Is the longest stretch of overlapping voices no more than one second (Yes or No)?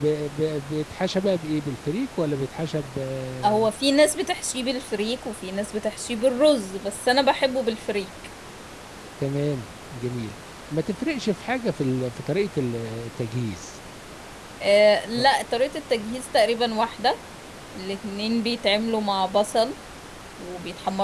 Yes